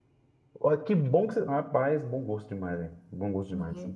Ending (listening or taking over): taking over